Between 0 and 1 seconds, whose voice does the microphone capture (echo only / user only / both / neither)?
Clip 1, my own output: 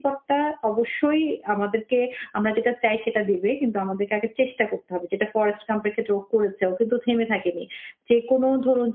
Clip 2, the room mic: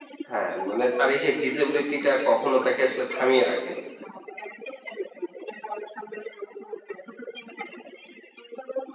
both